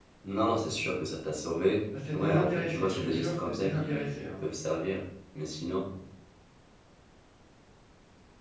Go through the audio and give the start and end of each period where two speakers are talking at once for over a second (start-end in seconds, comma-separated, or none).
2.1-4.2